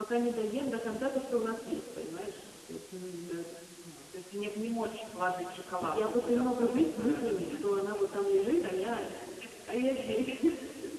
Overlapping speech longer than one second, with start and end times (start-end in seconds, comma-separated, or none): 5.8-7.8